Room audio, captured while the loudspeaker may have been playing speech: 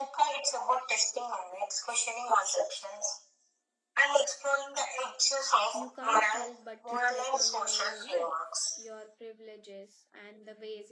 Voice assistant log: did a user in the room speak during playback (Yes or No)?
Yes